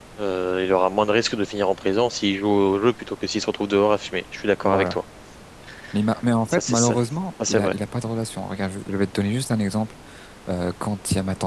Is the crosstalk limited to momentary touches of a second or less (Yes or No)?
Yes